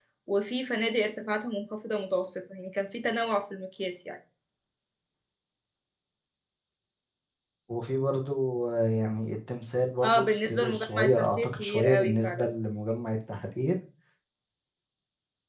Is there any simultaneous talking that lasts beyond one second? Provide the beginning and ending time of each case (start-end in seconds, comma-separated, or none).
10.0-12.4